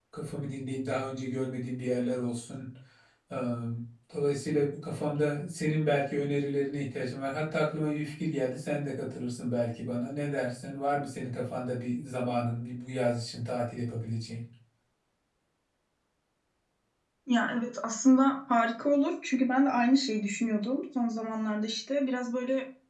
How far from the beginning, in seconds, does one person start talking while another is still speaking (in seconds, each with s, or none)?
none